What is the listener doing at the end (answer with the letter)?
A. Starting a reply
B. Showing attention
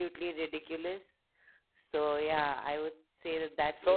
A